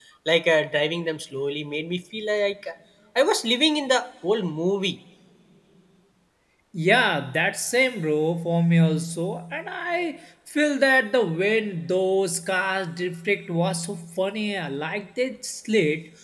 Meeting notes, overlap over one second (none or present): none